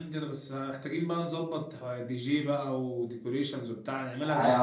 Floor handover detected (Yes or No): Yes